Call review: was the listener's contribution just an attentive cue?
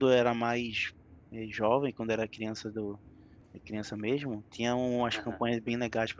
Yes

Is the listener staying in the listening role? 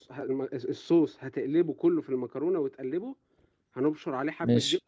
Yes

